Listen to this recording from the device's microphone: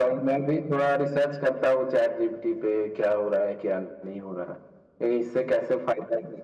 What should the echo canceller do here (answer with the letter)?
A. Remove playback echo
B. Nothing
A